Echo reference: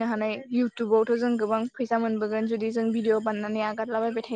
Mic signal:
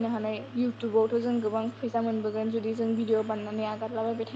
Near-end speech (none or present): none